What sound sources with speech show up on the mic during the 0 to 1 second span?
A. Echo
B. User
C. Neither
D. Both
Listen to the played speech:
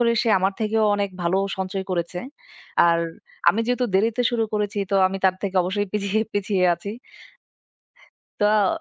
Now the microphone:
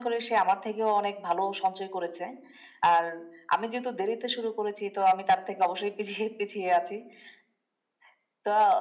A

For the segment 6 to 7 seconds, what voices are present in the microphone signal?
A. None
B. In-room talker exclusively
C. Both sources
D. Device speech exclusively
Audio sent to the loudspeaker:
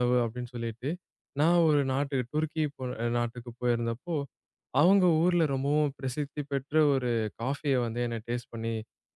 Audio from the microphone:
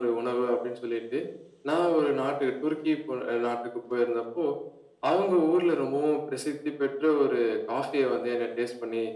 D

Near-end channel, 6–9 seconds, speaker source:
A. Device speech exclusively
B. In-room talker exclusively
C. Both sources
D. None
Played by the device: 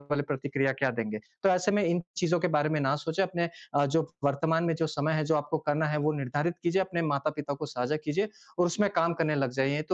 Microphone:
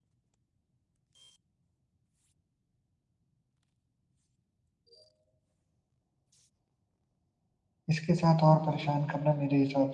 B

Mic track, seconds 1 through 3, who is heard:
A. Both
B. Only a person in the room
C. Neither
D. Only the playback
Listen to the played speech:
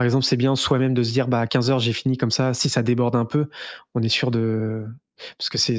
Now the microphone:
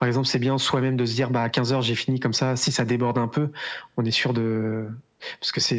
D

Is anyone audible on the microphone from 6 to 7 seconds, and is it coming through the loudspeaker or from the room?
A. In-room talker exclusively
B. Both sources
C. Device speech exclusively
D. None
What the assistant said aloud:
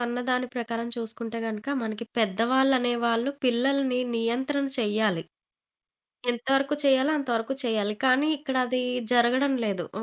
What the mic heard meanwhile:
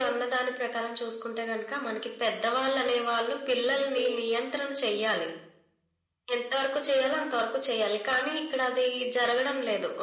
C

